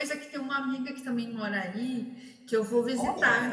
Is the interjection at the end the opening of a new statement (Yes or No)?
No